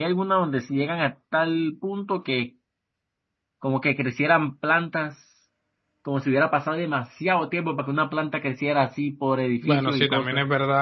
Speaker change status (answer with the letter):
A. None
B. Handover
B